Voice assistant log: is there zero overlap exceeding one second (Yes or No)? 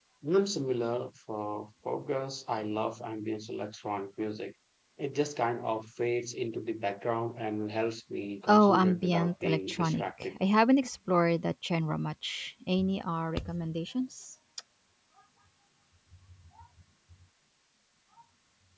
No